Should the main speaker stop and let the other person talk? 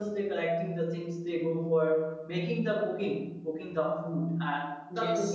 No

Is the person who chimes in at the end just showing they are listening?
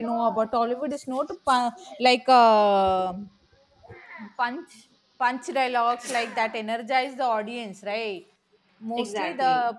Yes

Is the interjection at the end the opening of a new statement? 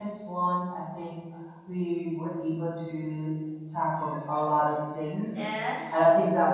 No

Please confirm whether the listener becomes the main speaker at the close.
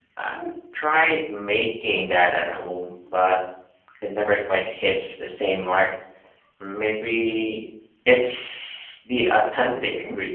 Yes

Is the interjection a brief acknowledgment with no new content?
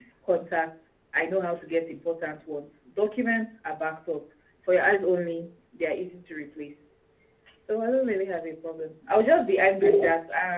Yes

